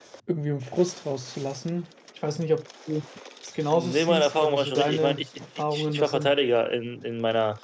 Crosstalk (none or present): present